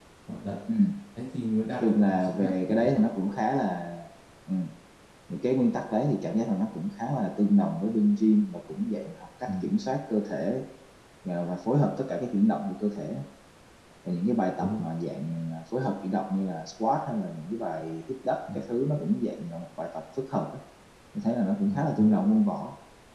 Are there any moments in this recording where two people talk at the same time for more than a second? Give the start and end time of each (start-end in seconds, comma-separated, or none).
1.8-3.3